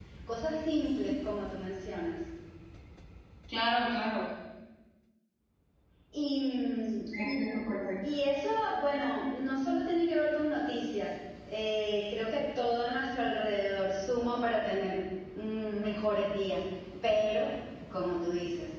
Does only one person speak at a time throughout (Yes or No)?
Yes